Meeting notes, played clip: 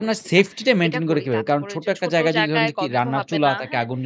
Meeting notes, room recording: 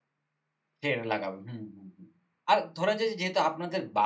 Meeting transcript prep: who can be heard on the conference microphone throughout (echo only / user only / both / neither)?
user only